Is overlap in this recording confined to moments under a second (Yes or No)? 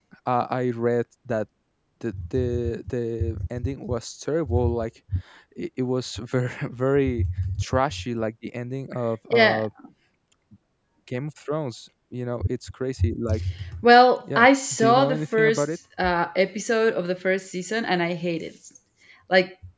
No